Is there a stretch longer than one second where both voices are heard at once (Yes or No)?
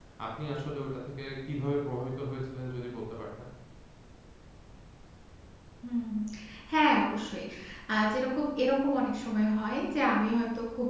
No